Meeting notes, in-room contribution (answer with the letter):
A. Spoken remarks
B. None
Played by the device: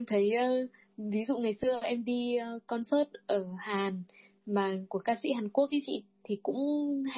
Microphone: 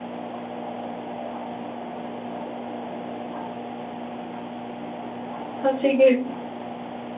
A